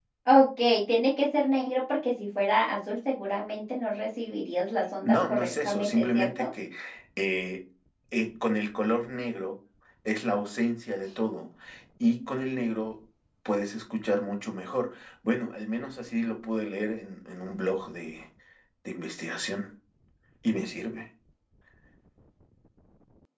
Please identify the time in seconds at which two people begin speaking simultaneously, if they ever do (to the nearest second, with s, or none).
5 s